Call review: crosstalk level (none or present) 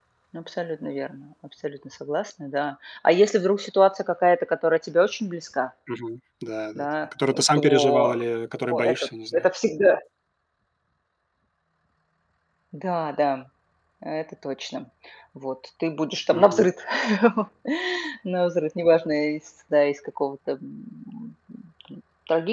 present